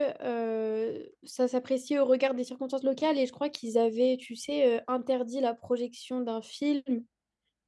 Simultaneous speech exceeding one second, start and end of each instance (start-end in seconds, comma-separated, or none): none